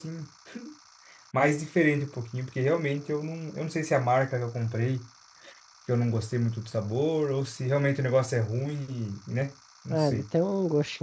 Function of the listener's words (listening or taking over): taking over